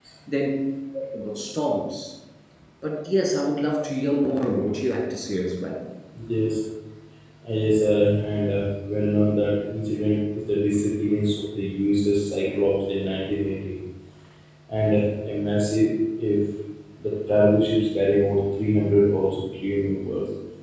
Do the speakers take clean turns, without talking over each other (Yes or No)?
Yes